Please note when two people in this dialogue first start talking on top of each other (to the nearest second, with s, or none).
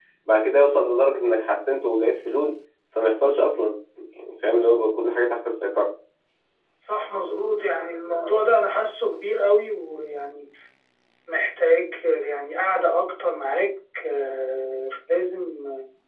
none